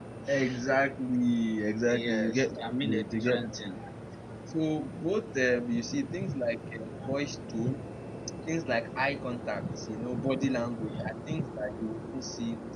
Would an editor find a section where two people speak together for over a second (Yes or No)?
Yes